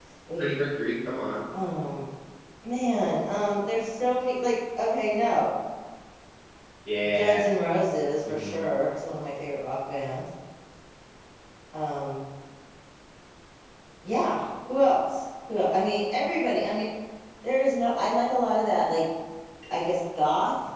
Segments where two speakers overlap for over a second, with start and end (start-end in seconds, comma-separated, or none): none